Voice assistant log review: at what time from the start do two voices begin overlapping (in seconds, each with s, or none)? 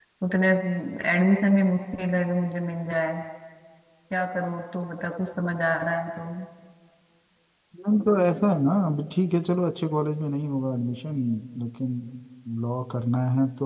none